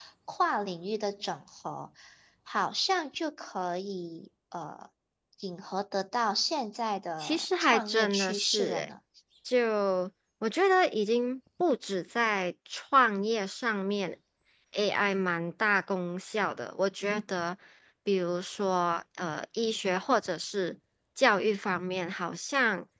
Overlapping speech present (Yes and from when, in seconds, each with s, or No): Yes, from 7.2 s